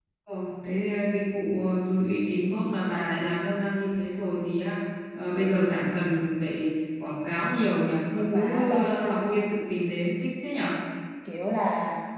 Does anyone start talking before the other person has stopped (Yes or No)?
Yes